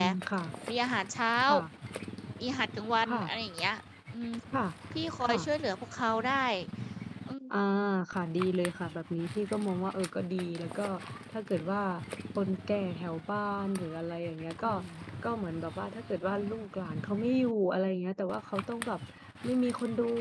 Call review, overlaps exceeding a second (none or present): none